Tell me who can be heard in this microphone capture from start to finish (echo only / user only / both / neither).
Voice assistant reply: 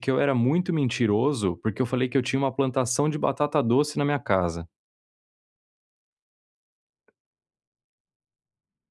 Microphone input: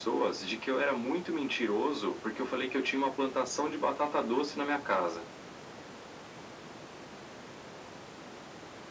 echo only